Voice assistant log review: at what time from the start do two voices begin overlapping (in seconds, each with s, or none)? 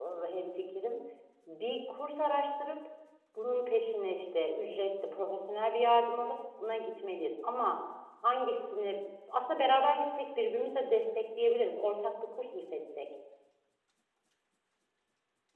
none